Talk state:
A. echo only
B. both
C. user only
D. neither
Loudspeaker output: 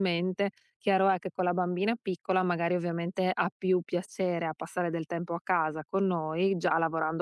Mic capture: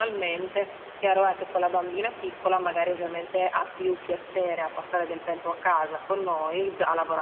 A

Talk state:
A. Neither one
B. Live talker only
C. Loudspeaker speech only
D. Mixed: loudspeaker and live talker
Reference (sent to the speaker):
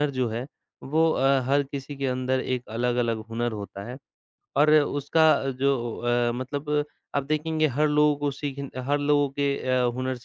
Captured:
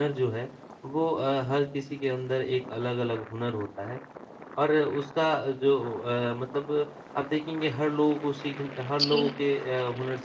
D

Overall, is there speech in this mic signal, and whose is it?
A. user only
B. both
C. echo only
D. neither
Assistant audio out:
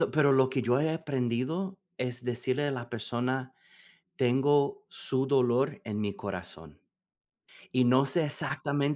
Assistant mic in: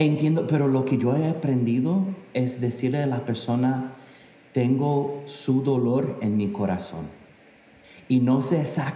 C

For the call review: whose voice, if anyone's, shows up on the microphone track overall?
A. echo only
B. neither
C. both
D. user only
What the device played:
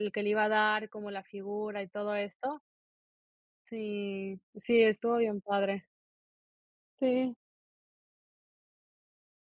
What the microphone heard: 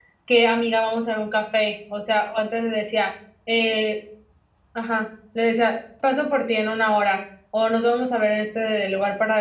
D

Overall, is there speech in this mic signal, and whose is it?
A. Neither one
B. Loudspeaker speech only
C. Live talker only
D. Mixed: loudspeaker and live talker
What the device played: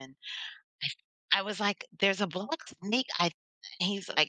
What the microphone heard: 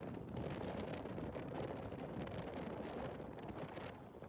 A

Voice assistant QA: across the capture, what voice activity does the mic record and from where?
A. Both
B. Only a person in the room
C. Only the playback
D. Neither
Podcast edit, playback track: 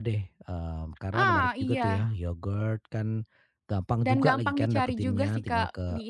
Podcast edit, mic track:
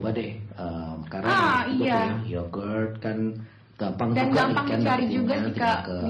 C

